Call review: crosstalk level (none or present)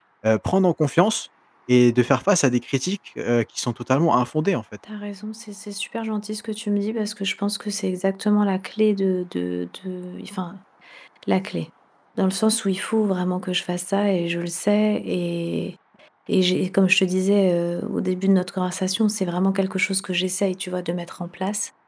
none